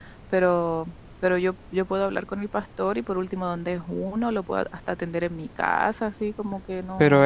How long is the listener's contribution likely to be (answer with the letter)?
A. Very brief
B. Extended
B